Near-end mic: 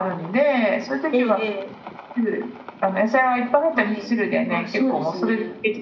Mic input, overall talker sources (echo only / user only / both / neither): echo only